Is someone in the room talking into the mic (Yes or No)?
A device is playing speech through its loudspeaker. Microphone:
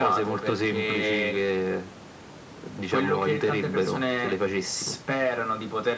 No